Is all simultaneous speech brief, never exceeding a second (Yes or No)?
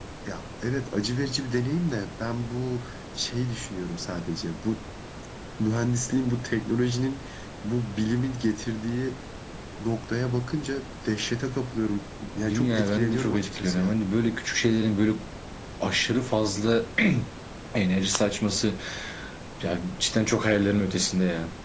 No